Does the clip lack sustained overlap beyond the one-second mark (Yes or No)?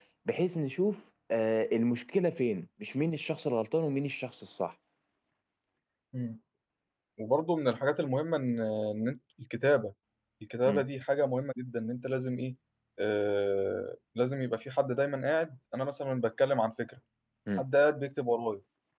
Yes